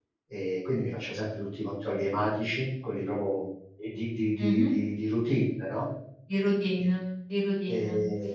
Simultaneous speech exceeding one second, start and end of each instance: none

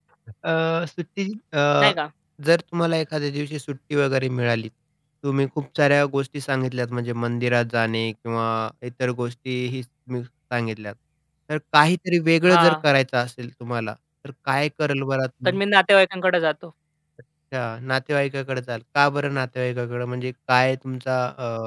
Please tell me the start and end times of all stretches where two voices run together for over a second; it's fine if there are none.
none

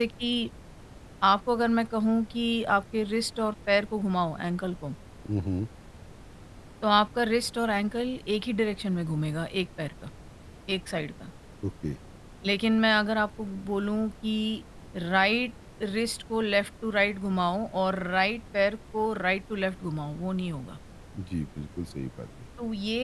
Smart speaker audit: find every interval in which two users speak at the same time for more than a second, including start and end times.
none

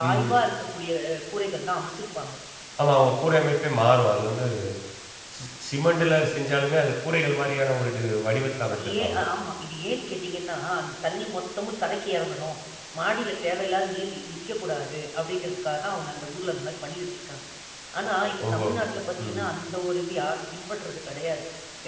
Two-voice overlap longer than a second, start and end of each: none

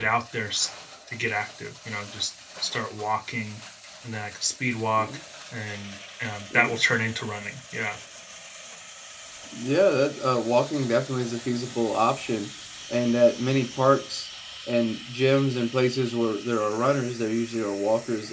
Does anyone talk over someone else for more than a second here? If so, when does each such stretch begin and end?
none

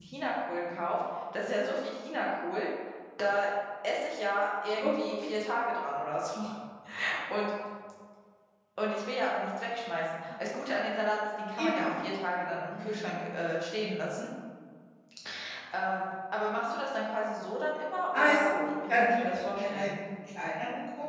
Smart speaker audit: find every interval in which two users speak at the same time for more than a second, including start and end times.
18.1-19.9

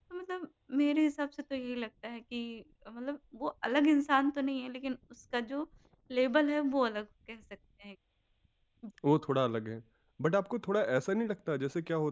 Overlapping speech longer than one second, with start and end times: none

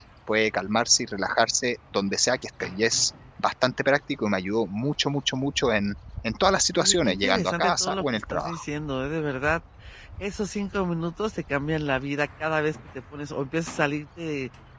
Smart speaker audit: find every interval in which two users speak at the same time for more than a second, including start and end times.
6.8-8.6

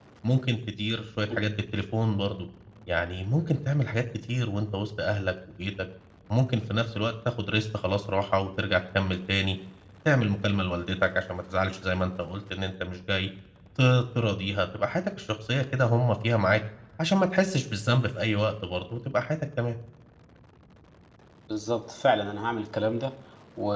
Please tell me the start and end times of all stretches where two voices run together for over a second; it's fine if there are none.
none

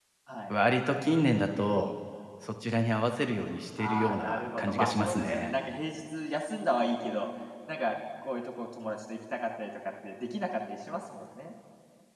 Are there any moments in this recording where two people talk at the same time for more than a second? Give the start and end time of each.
3.8-5.5

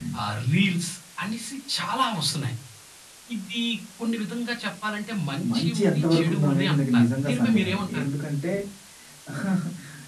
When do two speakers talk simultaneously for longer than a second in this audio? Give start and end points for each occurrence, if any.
5.5-8.1

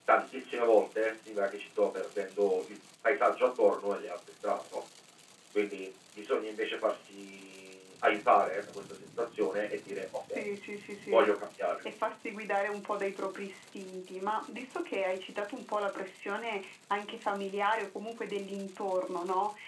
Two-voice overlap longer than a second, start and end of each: none

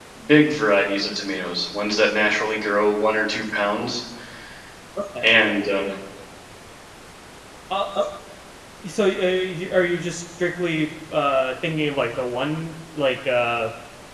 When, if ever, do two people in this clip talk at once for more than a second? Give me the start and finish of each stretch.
none

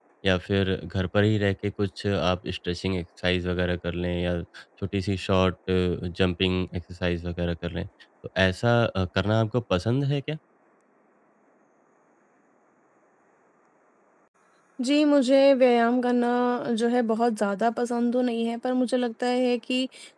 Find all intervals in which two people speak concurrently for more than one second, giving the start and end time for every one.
none

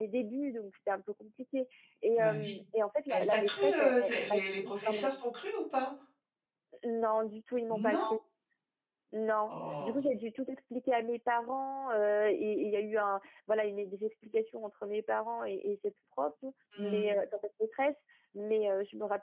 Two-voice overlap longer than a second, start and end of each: 3.1-5.1

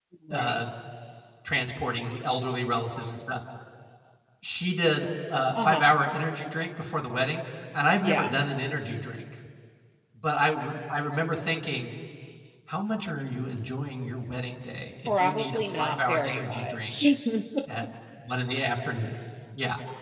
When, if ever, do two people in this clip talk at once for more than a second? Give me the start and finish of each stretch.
15.2-17.0

